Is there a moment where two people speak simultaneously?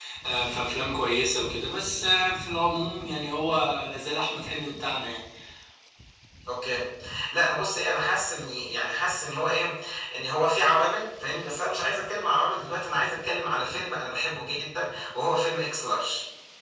No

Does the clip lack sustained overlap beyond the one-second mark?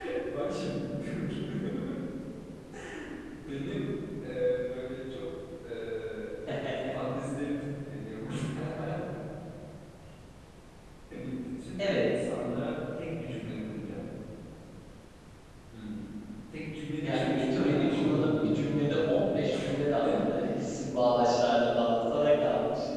No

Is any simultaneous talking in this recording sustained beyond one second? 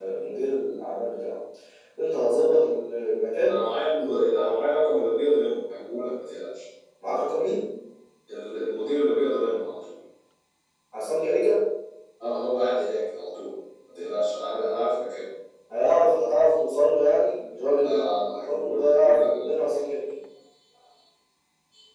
Yes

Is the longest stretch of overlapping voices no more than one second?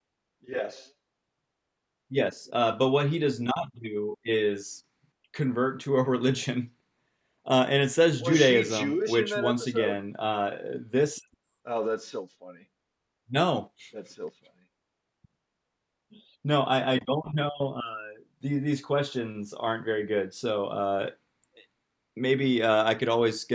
No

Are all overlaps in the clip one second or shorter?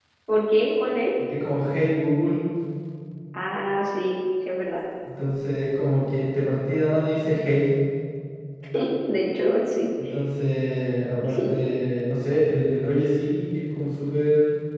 Yes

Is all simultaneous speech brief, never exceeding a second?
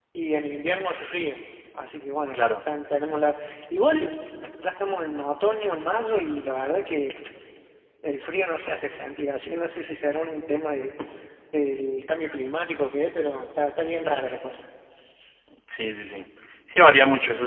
Yes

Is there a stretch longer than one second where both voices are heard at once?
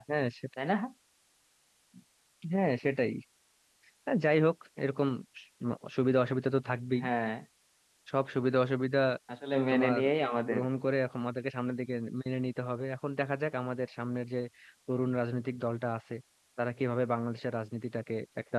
No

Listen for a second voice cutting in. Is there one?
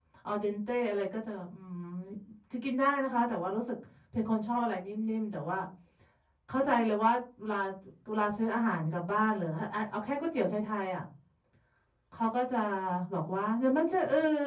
No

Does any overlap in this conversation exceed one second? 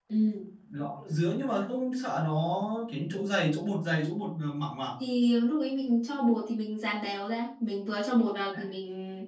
No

